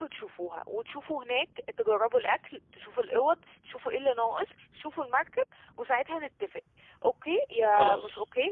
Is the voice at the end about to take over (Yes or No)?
No